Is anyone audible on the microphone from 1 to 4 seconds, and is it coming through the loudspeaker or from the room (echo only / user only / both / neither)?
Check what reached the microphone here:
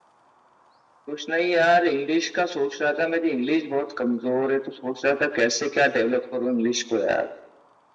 echo only